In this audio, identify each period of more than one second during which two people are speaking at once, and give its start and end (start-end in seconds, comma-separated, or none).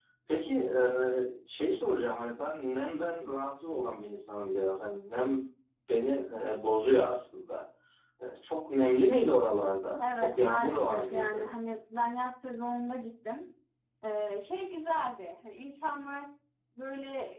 10.2-11.5